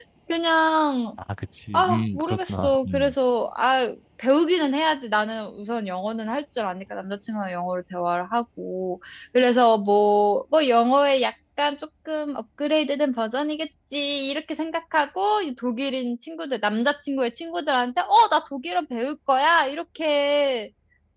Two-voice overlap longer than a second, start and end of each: 1.7-3.1

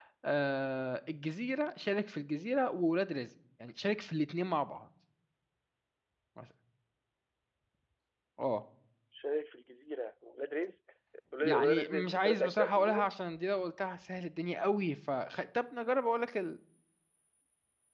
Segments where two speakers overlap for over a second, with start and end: 11.4-13.1

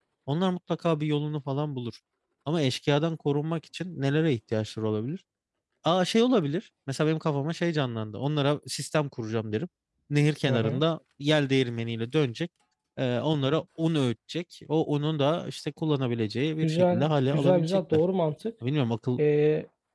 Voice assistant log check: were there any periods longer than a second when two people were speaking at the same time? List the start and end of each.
16.6-18.0

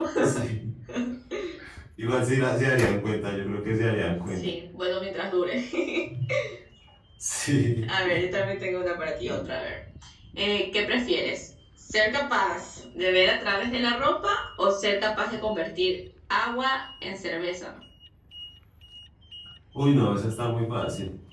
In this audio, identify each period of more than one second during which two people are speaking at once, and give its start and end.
none

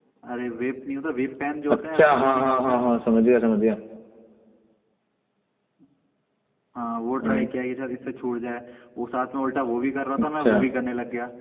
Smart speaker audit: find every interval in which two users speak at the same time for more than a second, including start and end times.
1.7-2.9

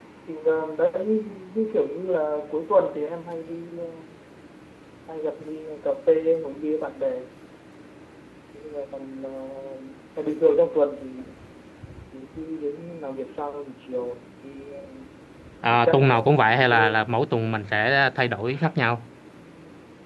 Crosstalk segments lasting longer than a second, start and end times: 15.7-16.9

